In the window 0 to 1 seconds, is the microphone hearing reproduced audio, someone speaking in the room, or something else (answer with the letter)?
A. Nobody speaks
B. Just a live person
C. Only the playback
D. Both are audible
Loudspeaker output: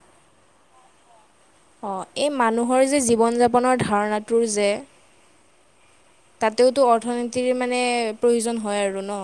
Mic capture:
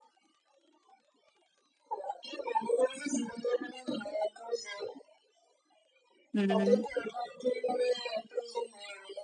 A